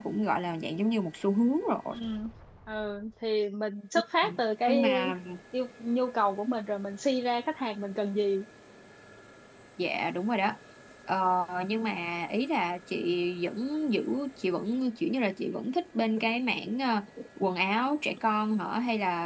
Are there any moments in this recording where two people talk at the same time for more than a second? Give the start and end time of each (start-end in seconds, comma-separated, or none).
none